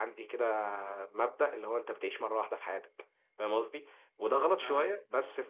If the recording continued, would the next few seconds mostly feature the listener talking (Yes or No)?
No